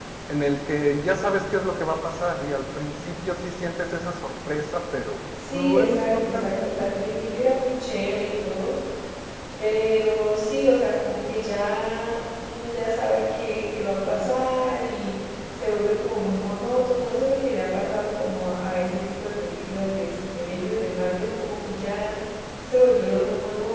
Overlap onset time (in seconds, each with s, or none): 5.4 s